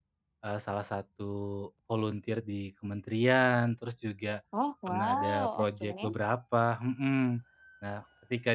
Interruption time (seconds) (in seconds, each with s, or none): 4.9 s